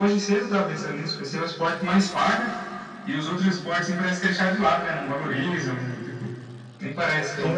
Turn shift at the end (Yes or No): Yes